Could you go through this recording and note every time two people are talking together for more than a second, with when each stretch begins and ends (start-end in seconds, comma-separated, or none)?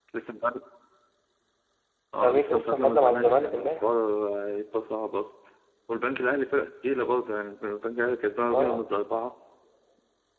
2.2-3.8